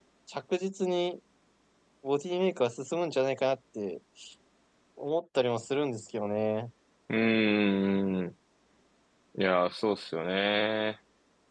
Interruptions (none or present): none